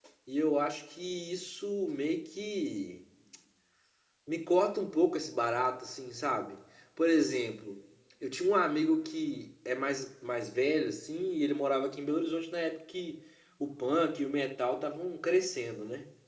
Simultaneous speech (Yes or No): No